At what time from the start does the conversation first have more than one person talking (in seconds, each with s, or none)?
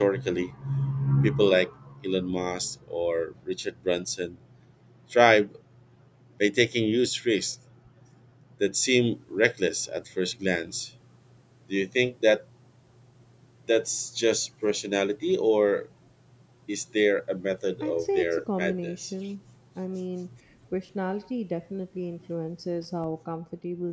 17.8 s